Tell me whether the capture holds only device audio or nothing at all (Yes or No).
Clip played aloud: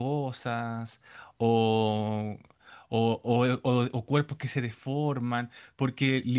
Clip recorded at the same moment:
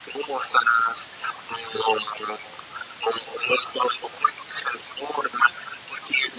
Yes